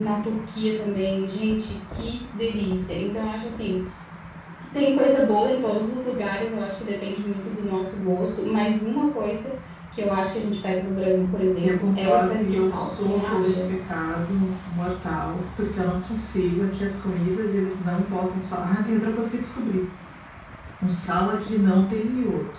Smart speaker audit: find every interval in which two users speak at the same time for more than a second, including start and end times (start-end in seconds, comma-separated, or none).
11.6-13.6